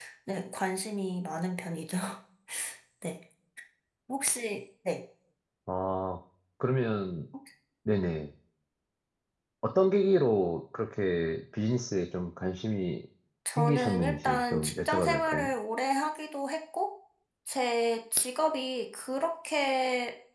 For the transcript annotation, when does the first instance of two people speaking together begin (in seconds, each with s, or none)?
13.5 s